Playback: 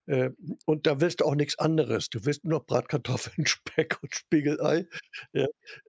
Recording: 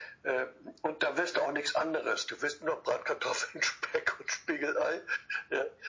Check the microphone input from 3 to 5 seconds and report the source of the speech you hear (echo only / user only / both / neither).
echo only